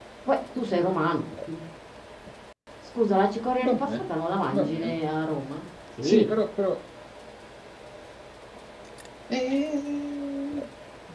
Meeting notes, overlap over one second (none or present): none